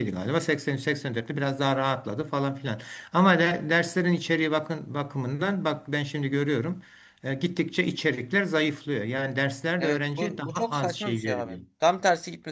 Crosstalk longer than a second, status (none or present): present